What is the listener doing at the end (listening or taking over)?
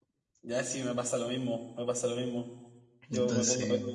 listening